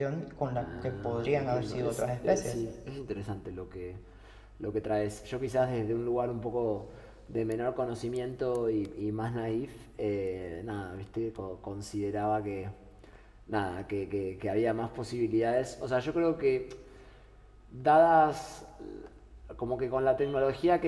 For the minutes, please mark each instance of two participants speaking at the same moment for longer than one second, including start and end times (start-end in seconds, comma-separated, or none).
0.5-2.6